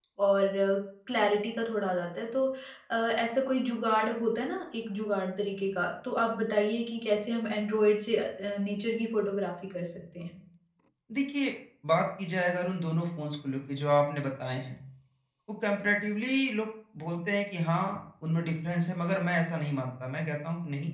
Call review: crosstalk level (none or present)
none